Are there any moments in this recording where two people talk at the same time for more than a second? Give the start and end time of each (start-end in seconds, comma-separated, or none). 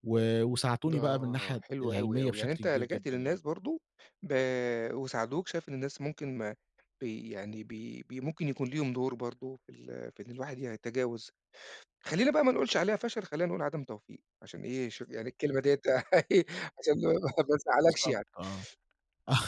0.9-3.3